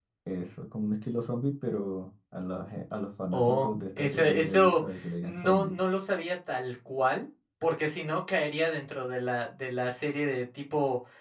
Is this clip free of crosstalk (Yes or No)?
No